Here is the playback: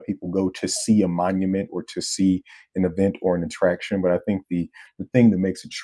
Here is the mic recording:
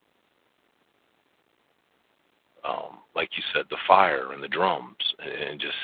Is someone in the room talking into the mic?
Yes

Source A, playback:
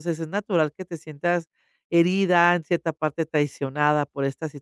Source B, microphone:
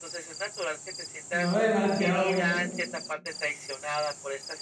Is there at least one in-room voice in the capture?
Yes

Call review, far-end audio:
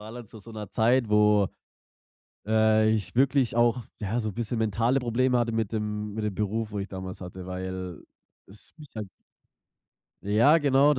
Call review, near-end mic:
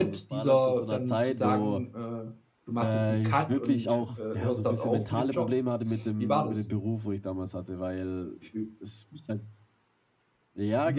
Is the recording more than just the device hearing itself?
Yes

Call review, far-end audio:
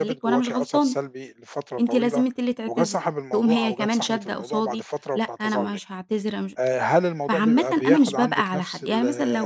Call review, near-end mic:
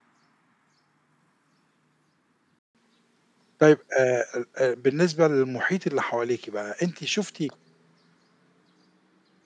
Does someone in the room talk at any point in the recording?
Yes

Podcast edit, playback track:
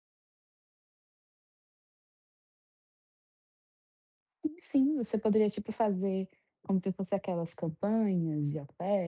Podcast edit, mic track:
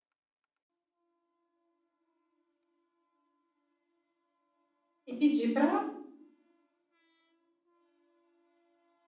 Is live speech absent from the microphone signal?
No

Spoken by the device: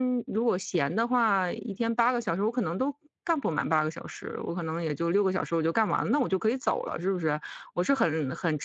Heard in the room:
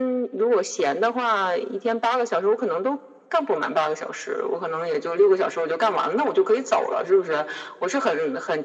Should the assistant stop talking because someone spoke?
No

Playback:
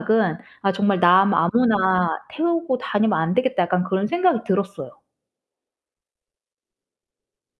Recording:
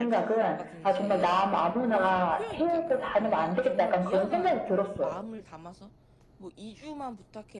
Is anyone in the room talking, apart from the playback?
Yes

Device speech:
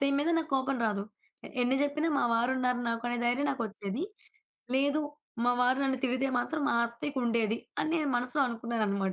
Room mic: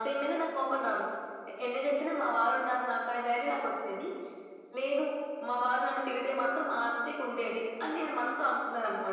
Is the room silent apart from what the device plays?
Yes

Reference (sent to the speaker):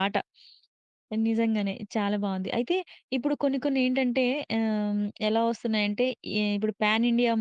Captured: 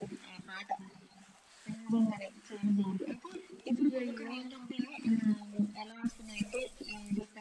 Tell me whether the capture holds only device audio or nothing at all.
No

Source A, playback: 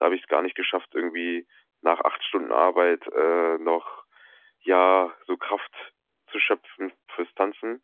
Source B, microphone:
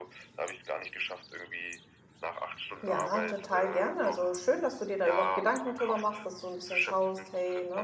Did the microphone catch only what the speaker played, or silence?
No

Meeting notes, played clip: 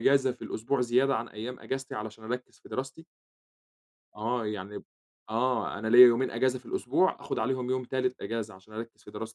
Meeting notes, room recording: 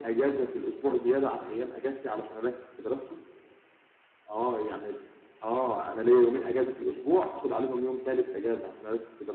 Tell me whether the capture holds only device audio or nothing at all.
Yes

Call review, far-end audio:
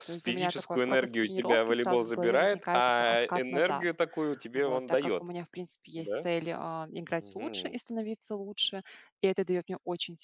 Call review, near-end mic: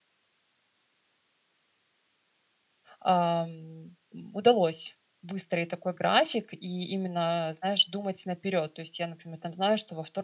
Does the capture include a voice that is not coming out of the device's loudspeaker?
Yes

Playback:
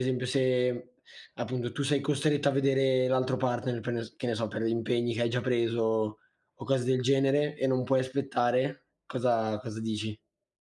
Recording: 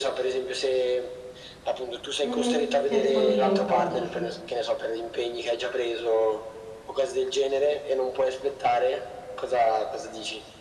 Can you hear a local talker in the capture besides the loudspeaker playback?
Yes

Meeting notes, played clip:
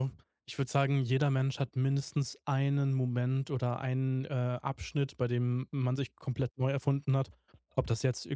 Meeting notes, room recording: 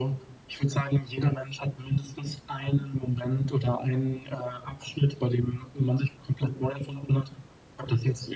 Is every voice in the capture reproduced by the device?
Yes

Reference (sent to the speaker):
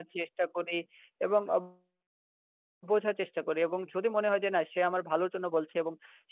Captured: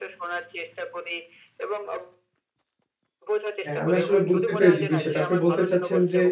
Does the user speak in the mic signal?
Yes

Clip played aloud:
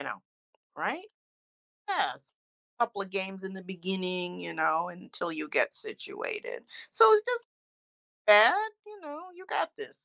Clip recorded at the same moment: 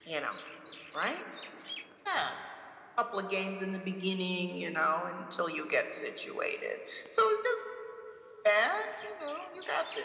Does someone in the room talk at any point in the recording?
No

